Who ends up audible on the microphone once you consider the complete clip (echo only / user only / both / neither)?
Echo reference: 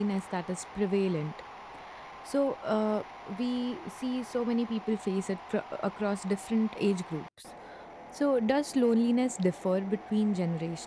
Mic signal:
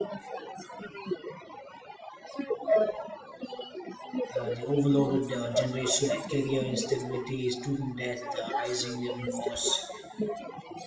both